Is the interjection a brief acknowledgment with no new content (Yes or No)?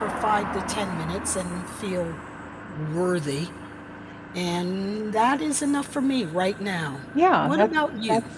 No